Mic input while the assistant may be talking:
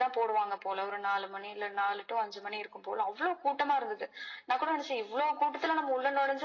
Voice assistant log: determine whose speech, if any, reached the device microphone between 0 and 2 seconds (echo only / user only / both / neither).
echo only